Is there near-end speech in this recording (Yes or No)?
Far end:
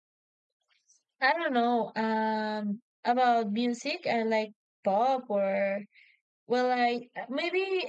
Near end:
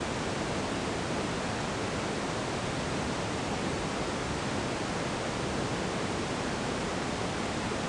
No